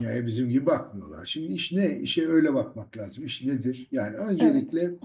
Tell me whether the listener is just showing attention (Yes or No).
Yes